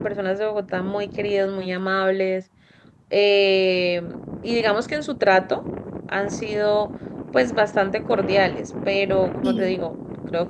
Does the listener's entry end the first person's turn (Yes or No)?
No